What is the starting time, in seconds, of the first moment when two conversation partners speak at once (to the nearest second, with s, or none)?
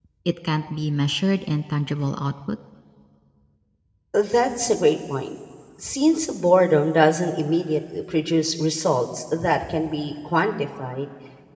none